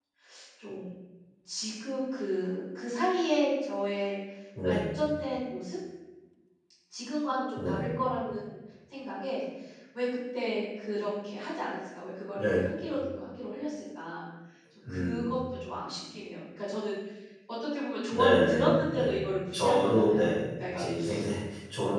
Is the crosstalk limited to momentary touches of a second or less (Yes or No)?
No